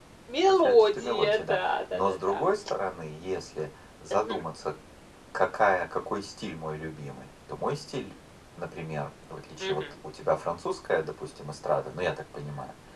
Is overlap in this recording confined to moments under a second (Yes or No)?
No